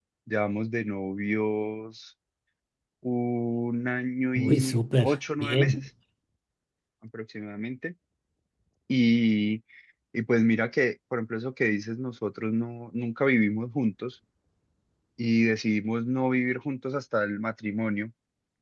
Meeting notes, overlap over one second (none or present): present